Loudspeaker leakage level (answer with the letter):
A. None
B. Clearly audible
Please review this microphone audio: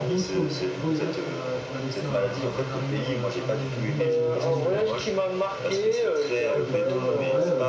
B